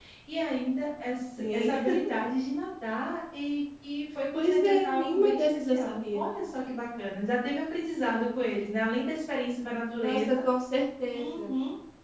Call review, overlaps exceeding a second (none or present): present